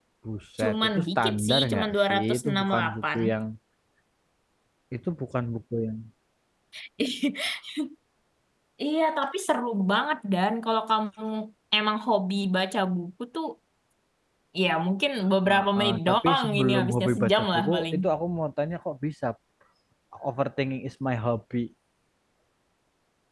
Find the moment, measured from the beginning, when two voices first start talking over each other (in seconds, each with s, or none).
0.6 s